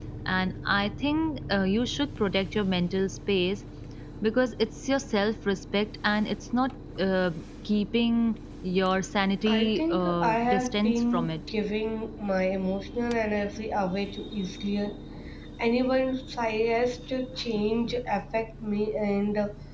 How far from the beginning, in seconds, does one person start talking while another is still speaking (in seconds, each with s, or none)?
9.5 s